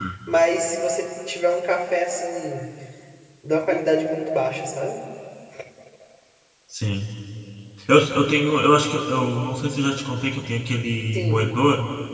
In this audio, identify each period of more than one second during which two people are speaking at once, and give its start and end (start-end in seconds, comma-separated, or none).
none